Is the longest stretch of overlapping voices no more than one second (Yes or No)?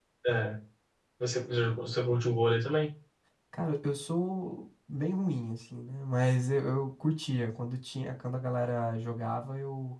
Yes